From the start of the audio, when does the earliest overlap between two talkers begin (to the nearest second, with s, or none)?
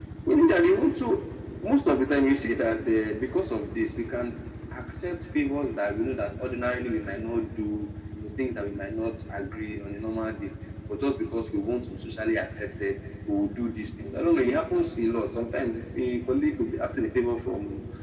none